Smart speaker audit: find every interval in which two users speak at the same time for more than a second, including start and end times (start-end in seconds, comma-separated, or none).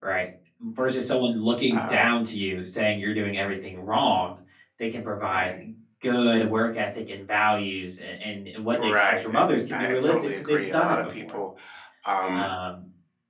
8.7-11.3